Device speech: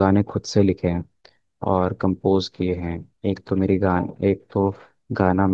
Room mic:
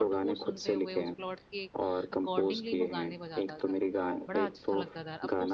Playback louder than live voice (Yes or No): Yes